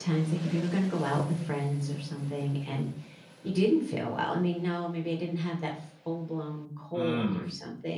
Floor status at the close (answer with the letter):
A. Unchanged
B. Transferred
A